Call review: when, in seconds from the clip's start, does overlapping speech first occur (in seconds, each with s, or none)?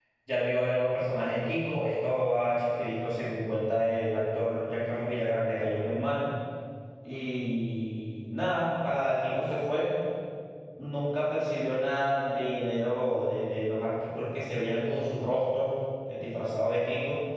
none